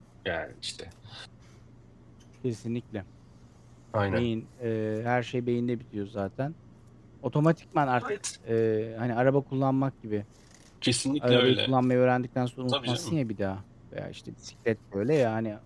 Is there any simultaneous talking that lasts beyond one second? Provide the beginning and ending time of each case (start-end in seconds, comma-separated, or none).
none